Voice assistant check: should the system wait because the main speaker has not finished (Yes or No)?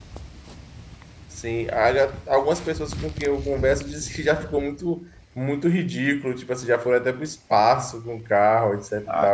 No